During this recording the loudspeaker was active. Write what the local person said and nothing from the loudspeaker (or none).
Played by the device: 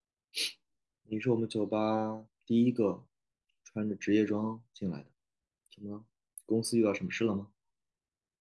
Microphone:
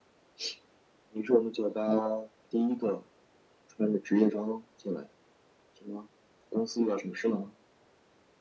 none